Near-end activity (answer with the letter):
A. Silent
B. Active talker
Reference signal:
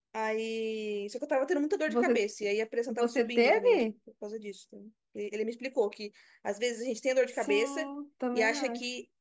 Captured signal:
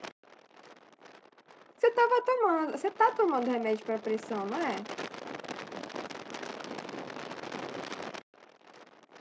B